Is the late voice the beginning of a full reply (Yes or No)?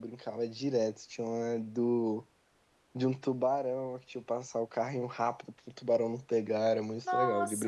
Yes